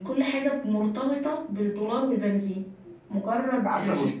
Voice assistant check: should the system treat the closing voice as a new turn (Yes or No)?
No